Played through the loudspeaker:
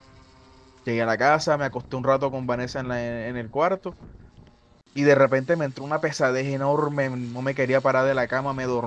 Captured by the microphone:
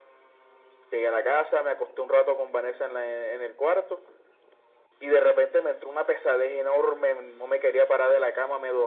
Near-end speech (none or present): none